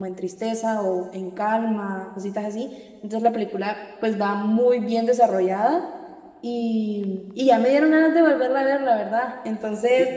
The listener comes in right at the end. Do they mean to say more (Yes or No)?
Yes